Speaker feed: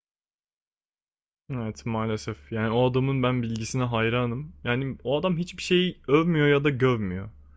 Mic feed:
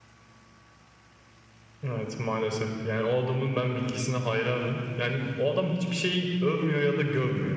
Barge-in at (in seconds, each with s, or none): none